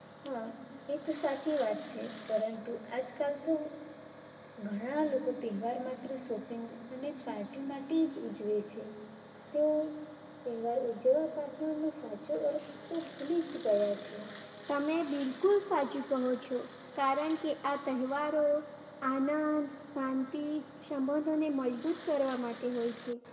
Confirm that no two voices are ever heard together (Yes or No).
Yes